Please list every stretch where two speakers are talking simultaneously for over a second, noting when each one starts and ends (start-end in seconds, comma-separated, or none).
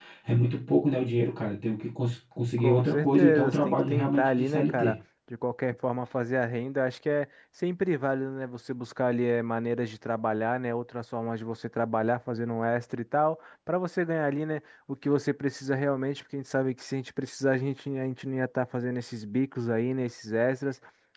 2.6-5.0